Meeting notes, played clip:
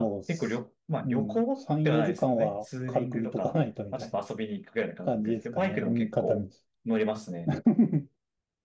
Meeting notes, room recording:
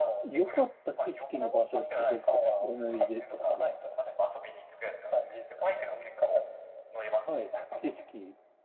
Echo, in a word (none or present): present